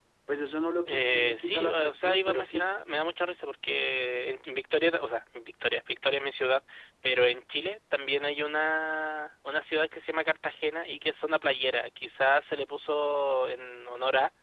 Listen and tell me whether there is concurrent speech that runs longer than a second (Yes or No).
Yes